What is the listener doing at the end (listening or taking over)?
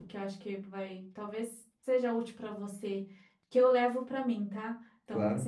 listening